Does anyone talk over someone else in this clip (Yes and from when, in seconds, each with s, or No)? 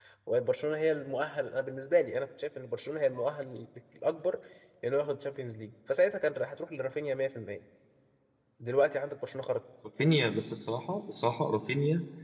No